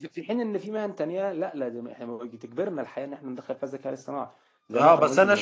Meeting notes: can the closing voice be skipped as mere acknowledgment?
No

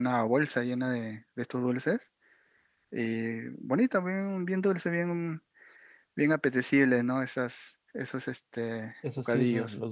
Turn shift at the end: Yes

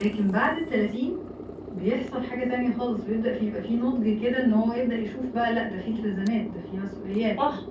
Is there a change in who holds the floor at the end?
Yes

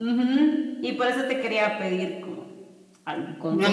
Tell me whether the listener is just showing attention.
No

